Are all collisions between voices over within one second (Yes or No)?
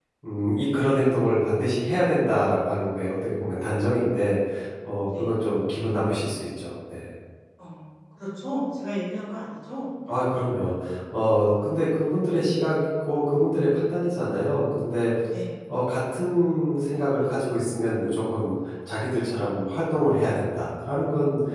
Yes